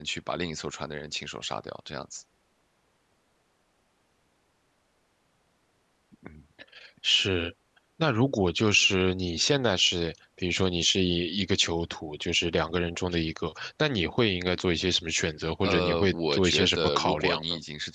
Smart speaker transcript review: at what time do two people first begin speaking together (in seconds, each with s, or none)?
15.6 s